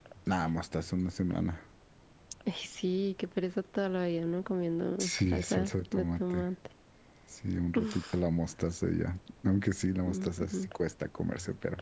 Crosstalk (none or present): present